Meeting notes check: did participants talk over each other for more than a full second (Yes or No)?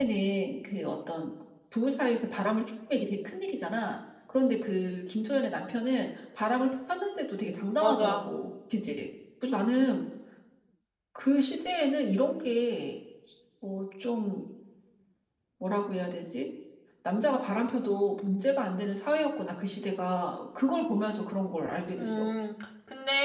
No